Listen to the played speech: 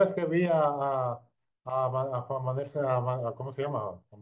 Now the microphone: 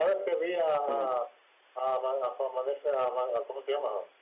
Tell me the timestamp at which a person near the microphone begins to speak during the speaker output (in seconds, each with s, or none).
0.9 s